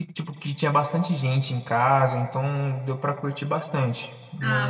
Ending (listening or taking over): taking over